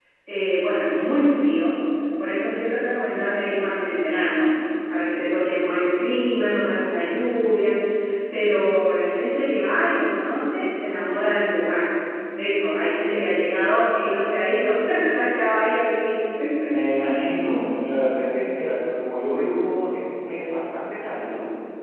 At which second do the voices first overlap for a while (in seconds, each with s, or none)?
none